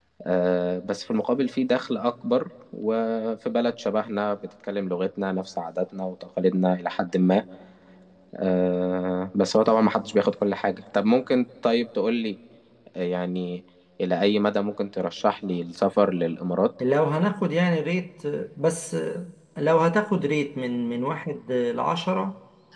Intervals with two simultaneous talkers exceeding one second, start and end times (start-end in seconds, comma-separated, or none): none